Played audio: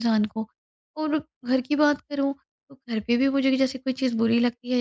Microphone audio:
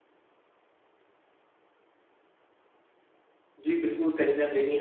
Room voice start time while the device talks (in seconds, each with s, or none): 3.6 s